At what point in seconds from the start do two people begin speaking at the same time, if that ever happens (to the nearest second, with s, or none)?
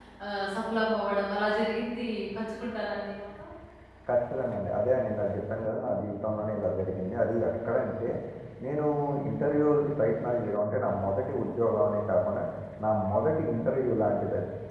none